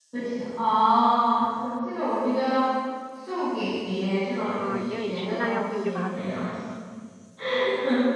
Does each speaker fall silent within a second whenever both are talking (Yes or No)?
No